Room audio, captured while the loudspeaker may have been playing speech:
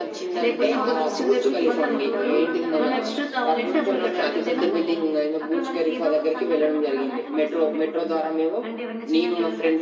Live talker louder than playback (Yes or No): No